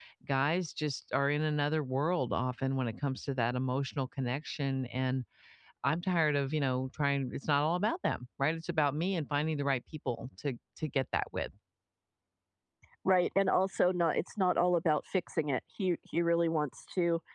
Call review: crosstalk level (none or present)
none